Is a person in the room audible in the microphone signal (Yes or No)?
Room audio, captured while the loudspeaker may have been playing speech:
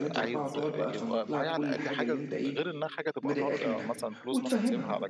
Yes